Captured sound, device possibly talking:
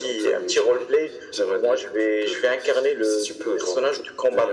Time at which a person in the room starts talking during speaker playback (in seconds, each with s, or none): none